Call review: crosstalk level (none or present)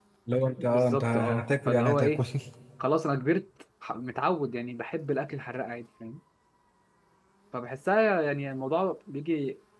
present